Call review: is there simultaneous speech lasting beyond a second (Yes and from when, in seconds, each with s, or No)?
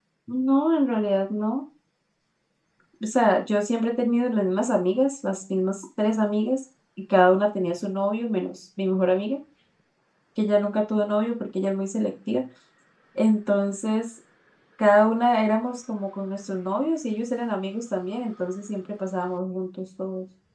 No